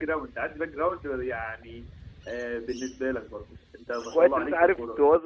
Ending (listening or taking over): taking over